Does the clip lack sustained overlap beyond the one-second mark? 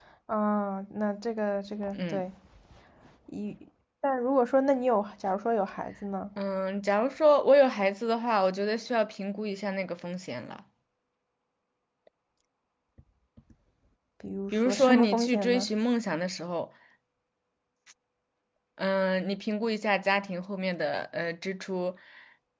No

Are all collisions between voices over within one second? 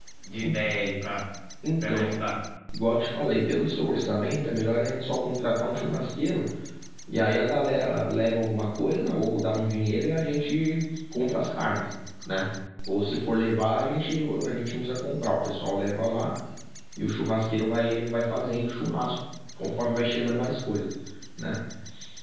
Yes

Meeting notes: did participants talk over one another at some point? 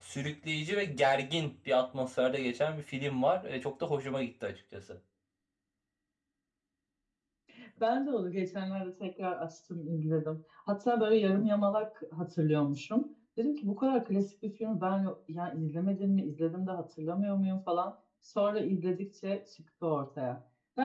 No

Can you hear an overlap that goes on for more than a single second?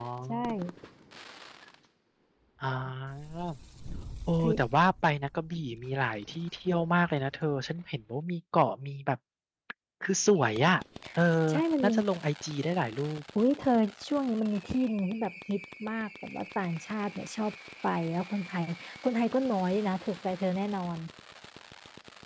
No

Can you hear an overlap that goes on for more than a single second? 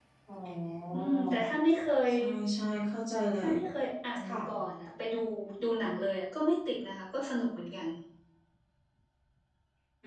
No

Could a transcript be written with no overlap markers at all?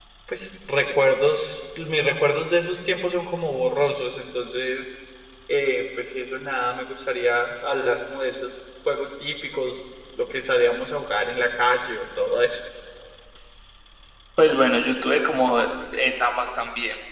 Yes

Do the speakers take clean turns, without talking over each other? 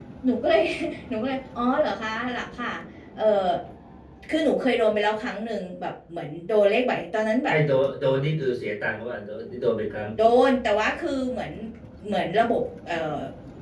Yes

